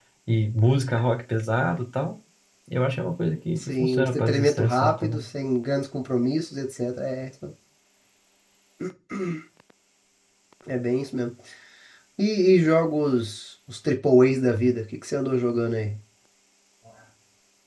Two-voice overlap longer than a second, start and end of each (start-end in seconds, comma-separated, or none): 3.6-5.2